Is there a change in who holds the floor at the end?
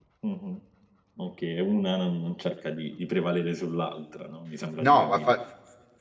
Yes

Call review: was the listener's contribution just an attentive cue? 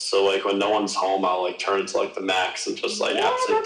No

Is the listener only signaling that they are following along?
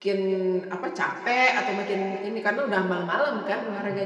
No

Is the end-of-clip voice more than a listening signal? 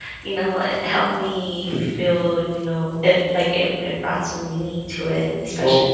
Yes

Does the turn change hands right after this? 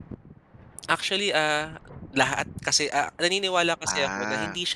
No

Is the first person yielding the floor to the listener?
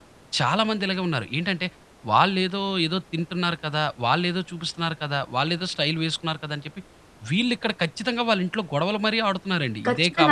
Yes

